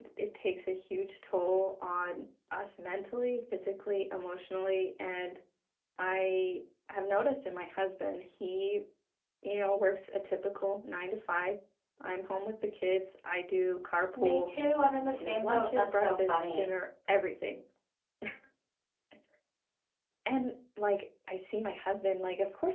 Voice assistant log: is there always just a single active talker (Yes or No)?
No